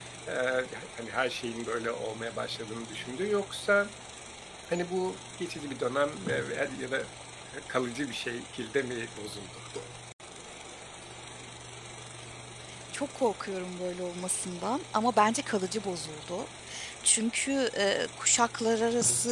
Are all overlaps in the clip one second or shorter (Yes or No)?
Yes